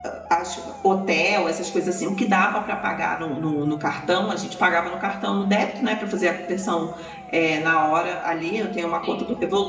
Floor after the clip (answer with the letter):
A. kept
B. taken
A